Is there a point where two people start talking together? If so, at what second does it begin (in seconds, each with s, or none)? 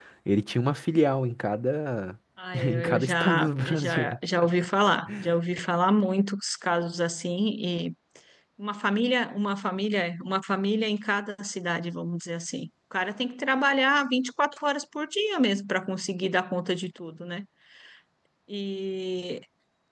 2.6 s